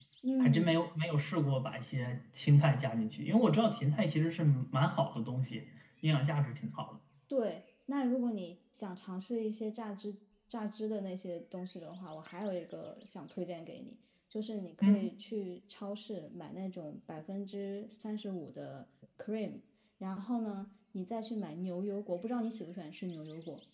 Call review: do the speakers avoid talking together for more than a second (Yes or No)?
Yes